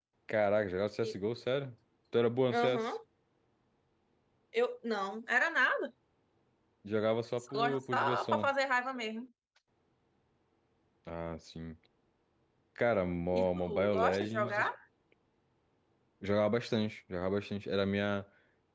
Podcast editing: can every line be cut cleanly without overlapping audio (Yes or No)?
No